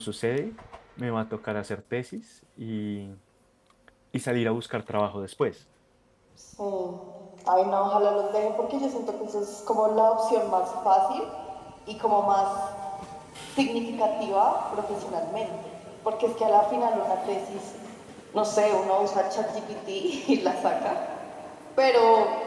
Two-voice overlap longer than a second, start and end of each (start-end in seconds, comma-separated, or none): none